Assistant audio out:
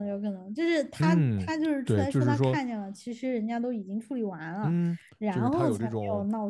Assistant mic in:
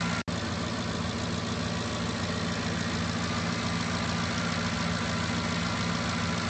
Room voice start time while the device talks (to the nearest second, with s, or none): none